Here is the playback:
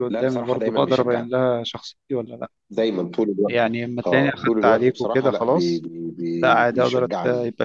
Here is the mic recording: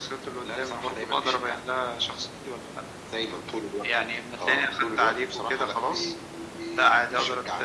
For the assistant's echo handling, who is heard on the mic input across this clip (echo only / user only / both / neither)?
echo only